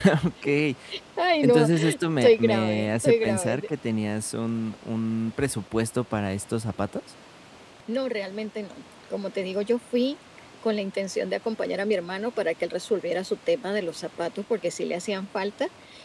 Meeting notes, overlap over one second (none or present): present